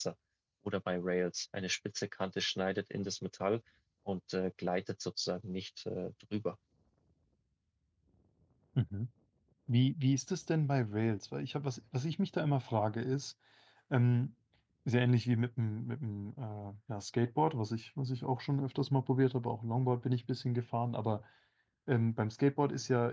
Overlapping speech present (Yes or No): No